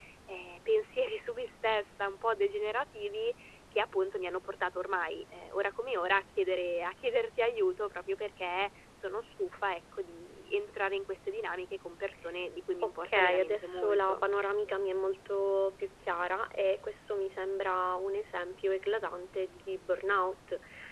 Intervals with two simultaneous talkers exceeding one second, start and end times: 12.8-14.2

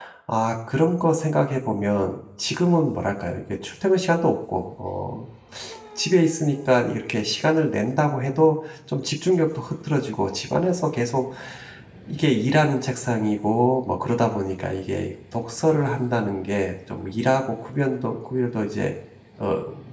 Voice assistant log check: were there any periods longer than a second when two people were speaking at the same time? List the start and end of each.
none

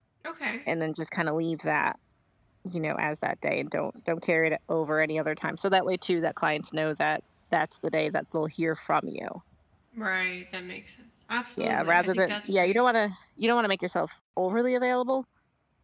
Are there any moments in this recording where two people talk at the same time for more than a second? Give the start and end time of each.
11.6-12.8

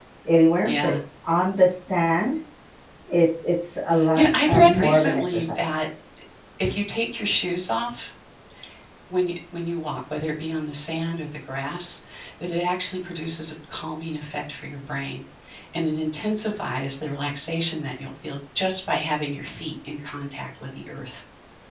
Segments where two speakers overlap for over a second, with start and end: 4.1-5.7

